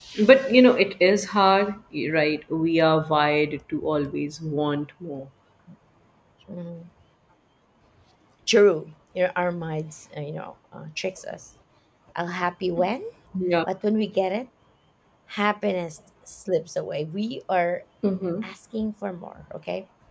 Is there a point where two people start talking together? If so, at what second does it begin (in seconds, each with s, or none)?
none